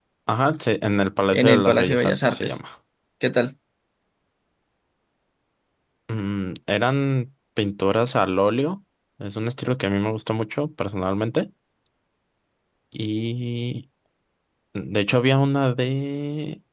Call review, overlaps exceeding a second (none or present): present